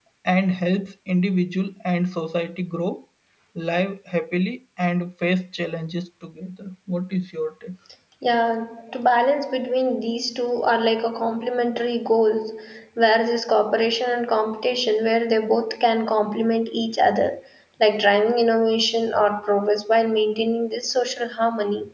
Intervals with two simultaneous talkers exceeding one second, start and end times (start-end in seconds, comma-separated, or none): none